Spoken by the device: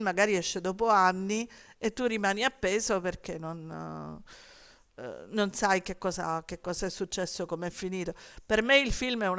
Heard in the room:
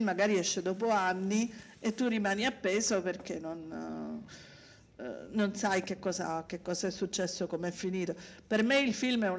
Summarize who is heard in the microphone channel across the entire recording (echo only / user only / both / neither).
echo only